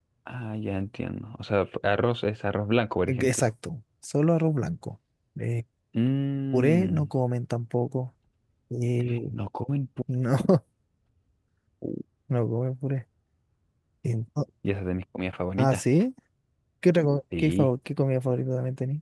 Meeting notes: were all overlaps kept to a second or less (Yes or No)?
Yes